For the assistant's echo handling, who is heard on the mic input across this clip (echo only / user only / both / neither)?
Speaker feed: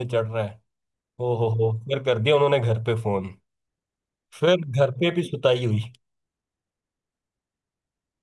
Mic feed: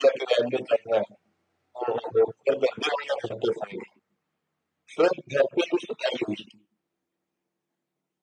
echo only